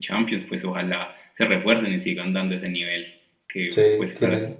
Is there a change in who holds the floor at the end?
No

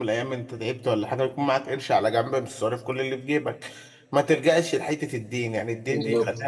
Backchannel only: Yes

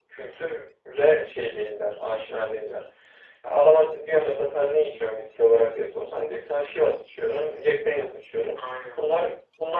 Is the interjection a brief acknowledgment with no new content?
Yes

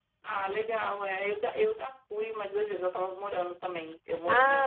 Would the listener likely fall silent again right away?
Yes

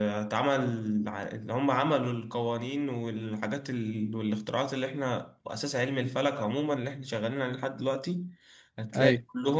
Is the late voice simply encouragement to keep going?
Yes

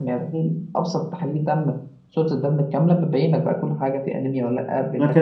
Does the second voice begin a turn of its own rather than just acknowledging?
Yes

